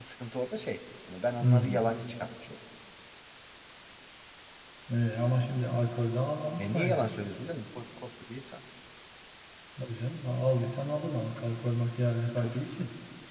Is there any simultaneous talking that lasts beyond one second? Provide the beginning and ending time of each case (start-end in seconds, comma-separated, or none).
none